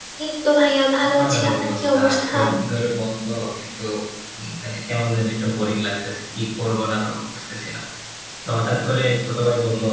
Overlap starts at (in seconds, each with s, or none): 1.1 s